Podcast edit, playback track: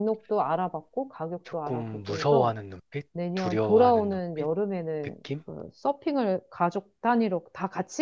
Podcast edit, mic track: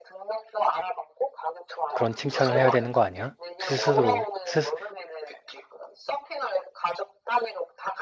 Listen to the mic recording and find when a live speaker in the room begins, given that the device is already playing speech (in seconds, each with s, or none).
1.9 s